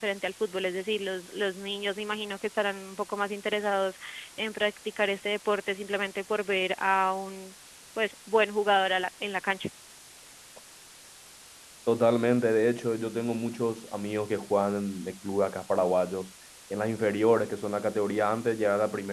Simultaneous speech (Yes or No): No